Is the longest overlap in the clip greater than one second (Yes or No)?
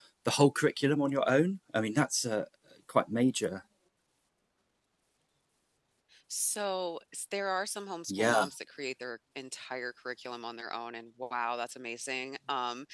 No